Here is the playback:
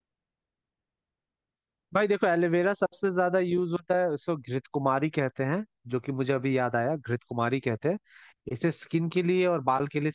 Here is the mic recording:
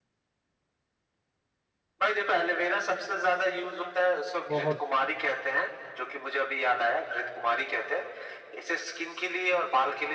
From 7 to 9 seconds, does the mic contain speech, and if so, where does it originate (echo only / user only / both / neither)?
echo only